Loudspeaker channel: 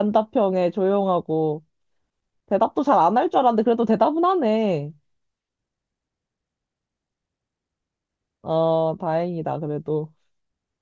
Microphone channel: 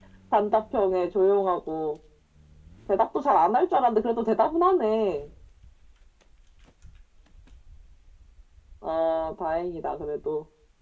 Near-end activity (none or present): none